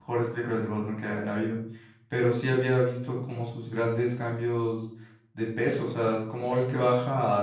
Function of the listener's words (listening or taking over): listening